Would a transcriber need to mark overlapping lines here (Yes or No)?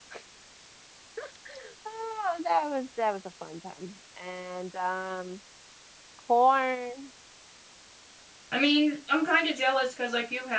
No